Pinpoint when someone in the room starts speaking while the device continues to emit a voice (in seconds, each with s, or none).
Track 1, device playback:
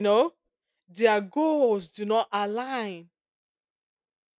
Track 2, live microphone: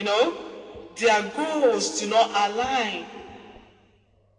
none